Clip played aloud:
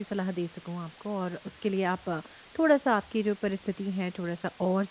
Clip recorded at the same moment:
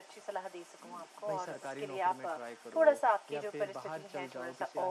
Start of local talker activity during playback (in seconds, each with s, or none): 1.3 s